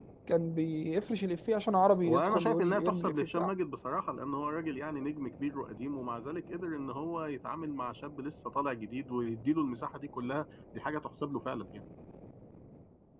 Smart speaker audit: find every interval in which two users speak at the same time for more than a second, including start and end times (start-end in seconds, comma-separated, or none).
2.0-3.5